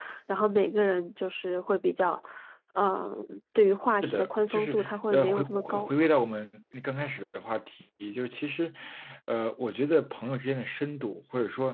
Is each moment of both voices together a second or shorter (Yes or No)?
No